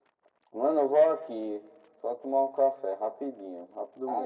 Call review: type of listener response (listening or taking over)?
taking over